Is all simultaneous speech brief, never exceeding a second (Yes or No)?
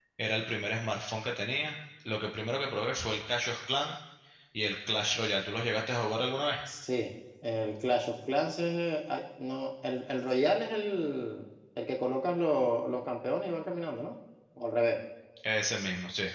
Yes